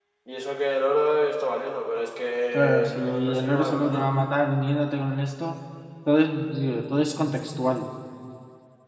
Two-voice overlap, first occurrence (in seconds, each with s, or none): 2.5 s